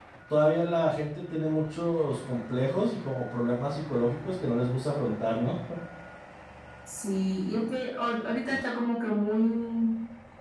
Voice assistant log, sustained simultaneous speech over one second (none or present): none